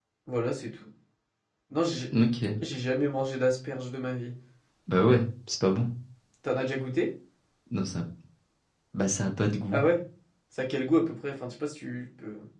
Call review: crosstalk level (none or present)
none